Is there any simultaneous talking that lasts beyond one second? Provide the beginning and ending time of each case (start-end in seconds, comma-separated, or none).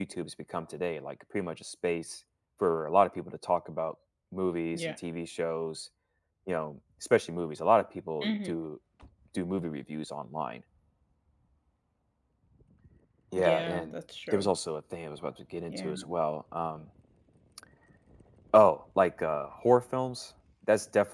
none